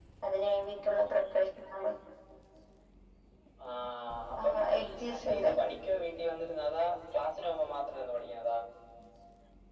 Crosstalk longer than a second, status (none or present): none